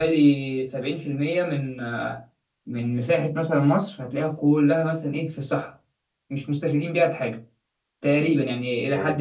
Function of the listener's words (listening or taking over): taking over